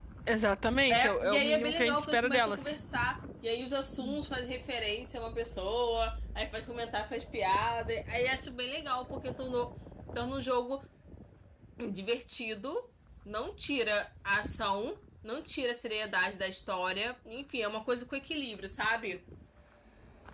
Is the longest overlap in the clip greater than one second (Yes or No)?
Yes